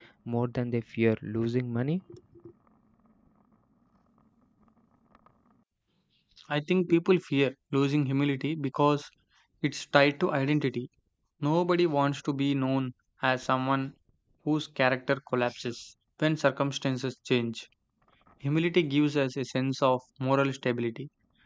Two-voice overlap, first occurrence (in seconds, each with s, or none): none